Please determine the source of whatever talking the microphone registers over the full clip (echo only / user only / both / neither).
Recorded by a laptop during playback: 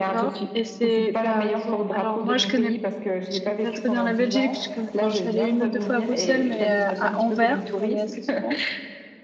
both